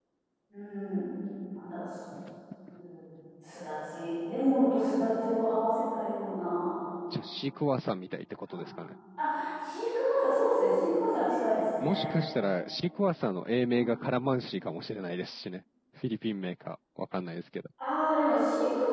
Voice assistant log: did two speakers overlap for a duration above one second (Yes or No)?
No